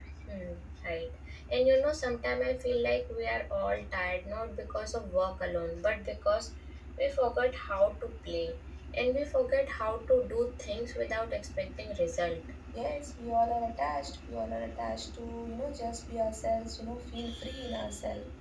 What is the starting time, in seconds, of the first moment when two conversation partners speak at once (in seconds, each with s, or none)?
none